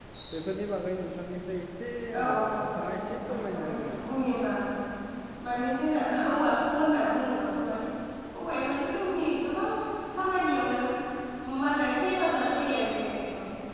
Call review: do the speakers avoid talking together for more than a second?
No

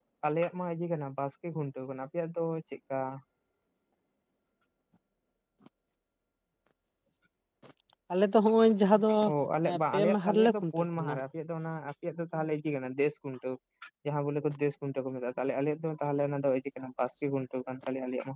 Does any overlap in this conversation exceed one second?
Yes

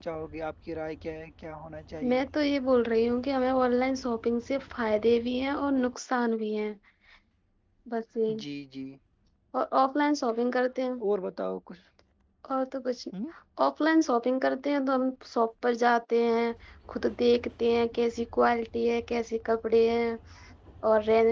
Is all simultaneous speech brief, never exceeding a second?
Yes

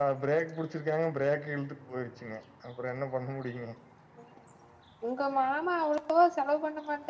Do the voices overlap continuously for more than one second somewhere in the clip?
No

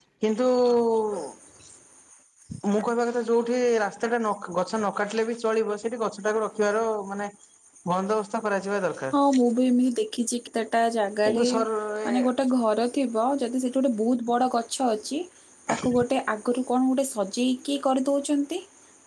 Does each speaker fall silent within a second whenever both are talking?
Yes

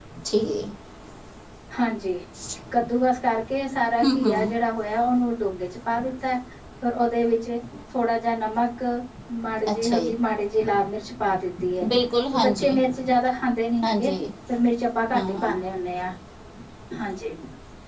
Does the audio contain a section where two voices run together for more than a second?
No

